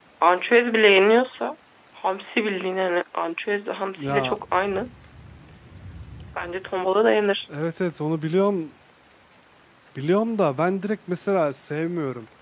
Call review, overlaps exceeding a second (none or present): none